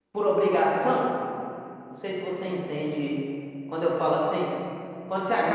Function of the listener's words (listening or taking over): taking over